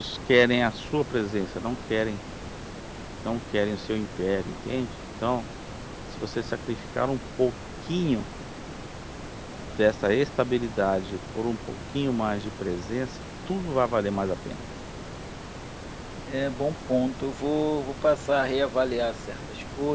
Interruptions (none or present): none